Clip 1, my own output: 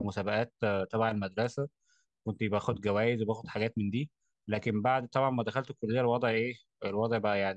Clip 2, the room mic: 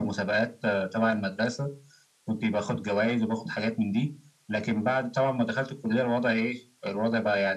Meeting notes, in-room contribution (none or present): none